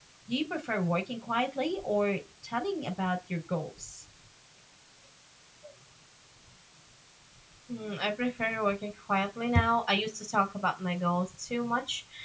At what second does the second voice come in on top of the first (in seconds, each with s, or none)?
none